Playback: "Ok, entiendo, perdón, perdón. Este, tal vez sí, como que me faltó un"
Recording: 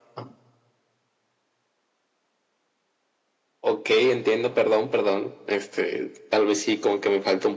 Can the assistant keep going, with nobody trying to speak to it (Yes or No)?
Yes